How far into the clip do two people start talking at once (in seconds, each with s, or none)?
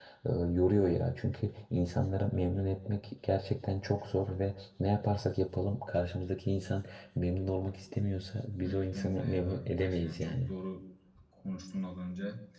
8.6 s